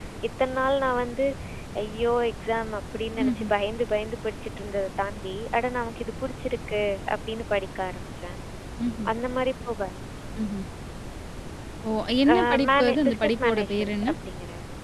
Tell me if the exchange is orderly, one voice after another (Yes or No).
No